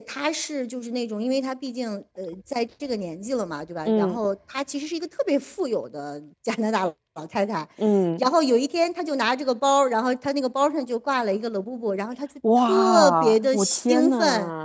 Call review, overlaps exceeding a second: present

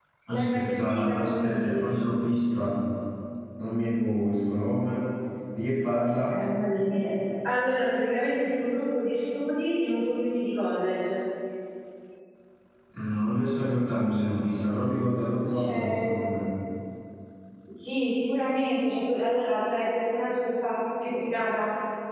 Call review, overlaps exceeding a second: present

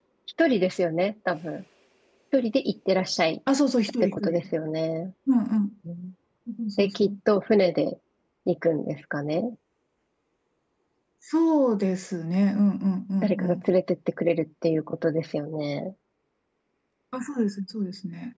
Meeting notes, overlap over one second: none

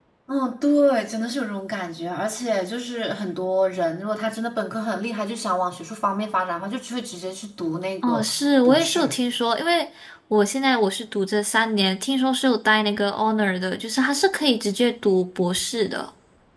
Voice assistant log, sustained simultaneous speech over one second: none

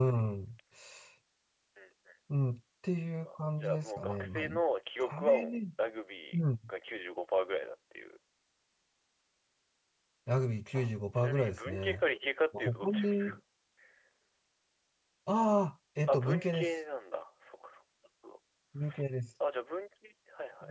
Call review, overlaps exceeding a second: present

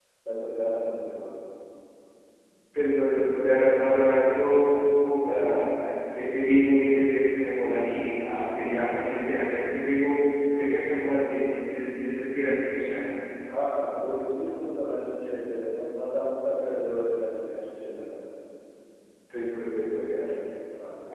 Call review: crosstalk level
none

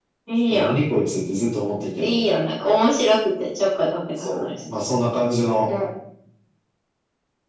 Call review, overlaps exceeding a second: none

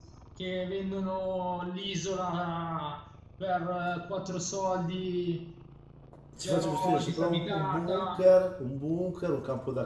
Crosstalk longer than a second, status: present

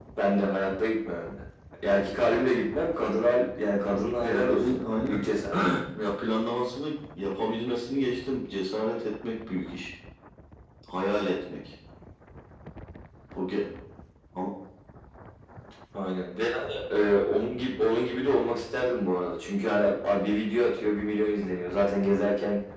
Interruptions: present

